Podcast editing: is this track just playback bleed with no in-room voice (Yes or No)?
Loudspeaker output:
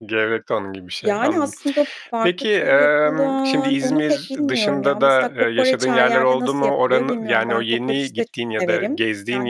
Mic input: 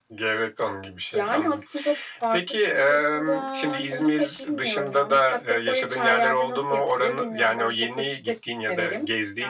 Yes